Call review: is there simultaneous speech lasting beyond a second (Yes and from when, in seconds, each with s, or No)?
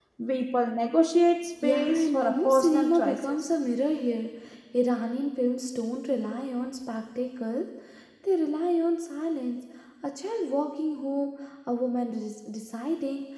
Yes, from 1.6 s